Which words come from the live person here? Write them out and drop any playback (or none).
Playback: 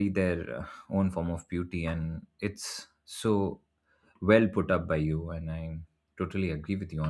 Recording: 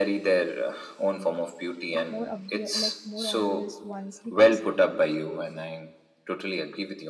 like more obvious, like more obvious ones, because